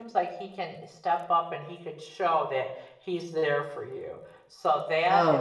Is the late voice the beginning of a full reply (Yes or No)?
No